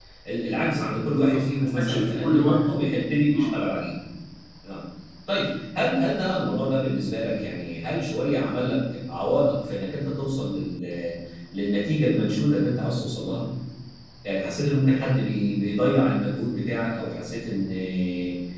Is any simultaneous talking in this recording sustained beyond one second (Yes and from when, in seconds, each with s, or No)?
Yes, from 1.1 s